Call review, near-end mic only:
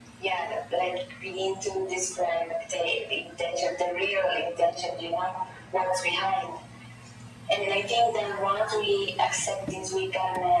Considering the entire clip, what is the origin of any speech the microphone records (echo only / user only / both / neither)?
echo only